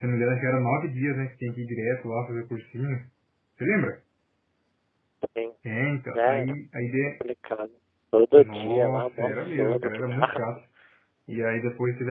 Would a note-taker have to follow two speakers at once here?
Yes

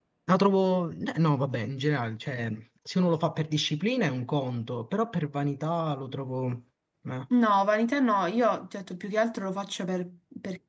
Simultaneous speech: No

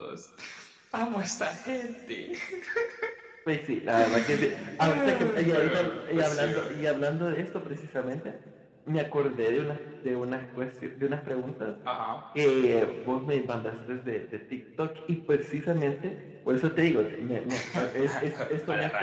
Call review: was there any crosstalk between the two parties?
Yes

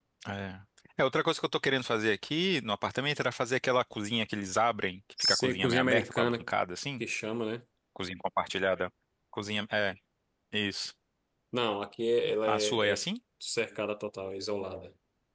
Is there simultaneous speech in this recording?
Yes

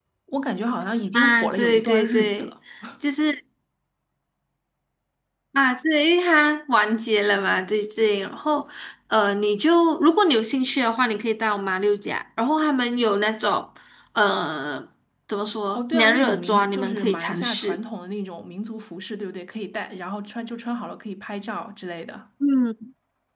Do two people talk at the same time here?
Yes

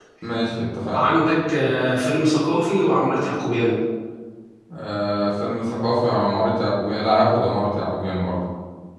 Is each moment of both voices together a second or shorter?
Yes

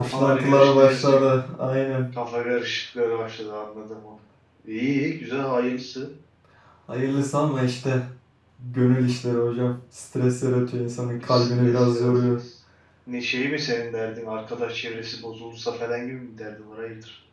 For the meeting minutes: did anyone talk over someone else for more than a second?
Yes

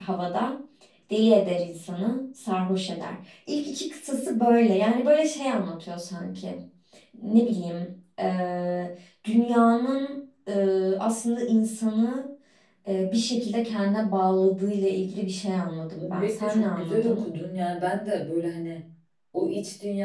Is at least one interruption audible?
Yes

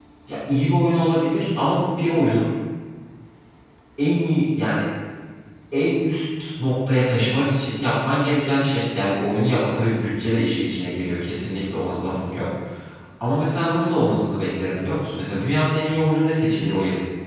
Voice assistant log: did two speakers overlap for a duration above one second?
No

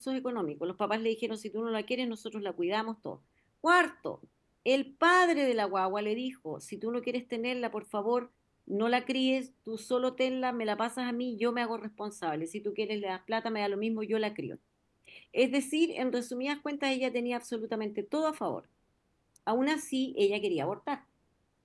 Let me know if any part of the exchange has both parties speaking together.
No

